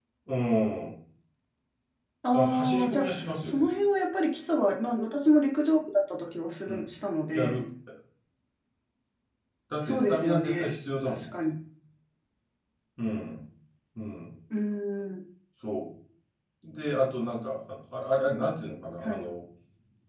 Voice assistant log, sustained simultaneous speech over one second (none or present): present